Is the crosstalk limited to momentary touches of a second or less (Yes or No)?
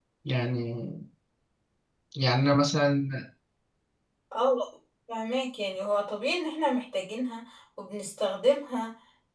Yes